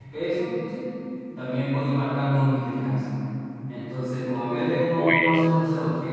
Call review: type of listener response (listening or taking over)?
listening